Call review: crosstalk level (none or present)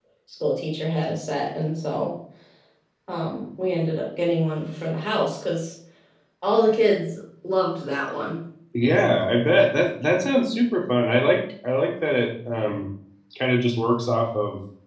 none